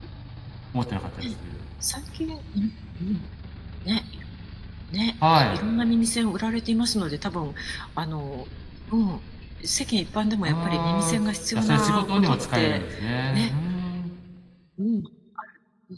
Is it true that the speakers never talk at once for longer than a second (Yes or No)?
No